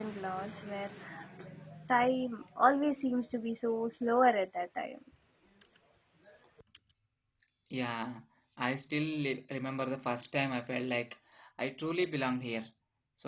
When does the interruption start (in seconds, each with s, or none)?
none